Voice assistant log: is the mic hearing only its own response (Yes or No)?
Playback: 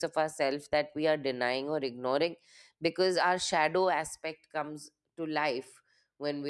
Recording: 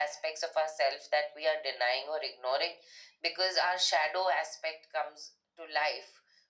Yes